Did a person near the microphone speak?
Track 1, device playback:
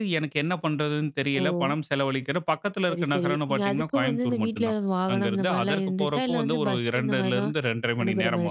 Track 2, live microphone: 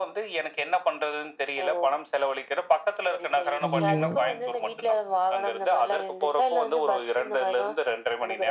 Yes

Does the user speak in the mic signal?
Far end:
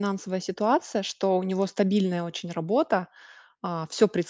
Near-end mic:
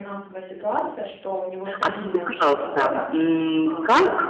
Yes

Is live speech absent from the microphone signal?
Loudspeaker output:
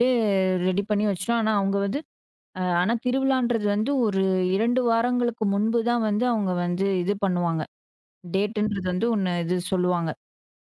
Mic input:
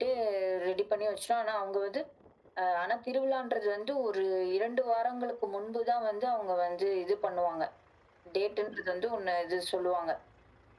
Yes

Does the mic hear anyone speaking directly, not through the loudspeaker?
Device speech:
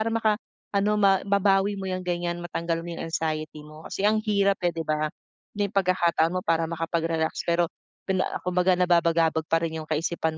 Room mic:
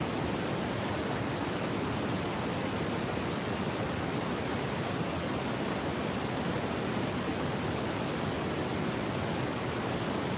No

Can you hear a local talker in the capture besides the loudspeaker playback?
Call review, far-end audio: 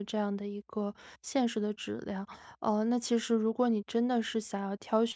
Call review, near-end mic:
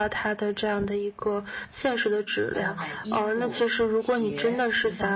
Yes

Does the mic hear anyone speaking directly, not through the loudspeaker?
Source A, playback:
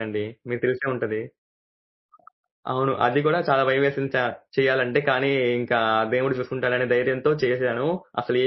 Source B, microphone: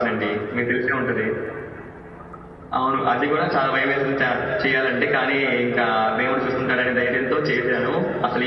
No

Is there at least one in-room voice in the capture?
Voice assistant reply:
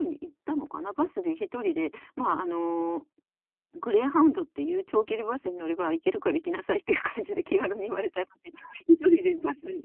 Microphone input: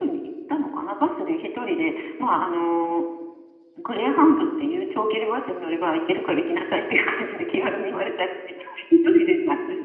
No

